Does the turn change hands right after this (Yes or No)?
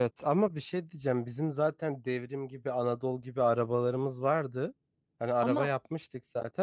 No